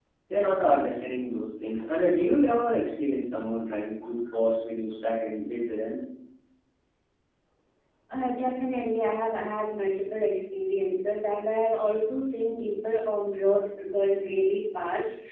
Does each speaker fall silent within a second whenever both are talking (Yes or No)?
Yes